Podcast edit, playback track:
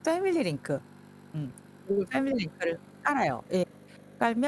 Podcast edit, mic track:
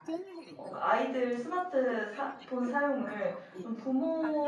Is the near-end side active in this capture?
Yes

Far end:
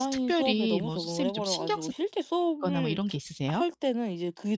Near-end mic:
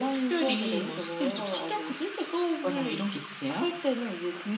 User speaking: No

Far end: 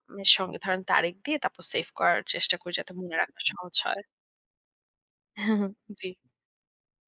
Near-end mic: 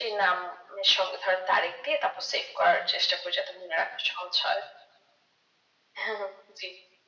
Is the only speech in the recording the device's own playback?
Yes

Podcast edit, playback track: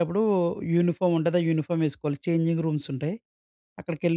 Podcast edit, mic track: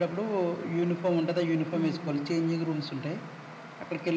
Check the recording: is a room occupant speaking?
Yes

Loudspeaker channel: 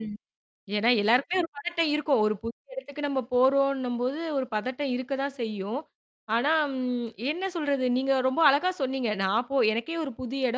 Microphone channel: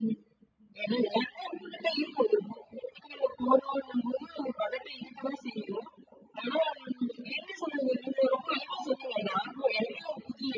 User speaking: No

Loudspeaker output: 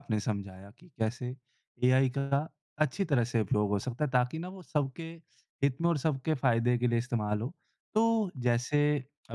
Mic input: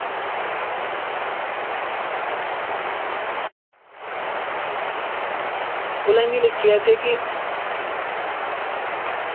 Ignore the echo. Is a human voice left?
Yes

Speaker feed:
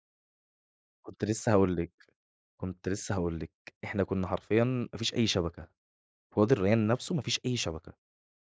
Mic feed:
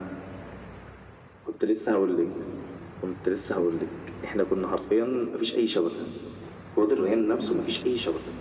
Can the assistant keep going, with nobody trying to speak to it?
Yes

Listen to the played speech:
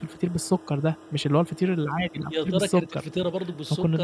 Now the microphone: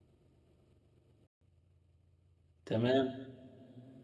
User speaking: Yes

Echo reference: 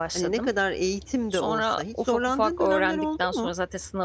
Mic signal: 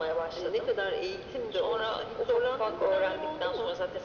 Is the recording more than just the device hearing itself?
No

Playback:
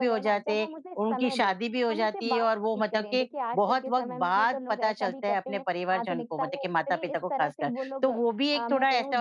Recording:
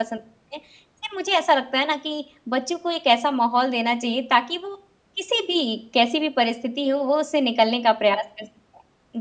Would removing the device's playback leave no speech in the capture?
No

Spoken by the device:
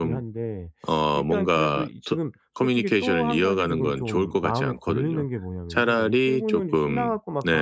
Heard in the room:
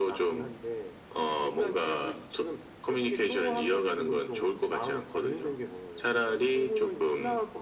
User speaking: No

